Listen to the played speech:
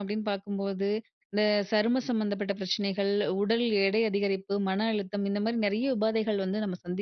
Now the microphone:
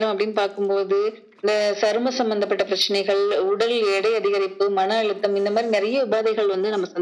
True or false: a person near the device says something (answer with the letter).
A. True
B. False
B